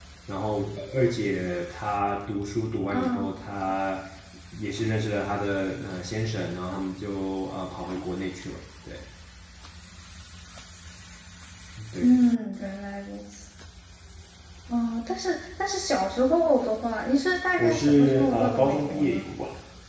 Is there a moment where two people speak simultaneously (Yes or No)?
Yes